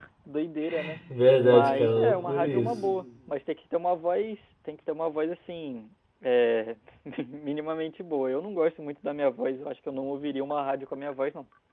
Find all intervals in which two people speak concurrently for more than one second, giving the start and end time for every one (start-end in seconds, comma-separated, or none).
1.4-2.7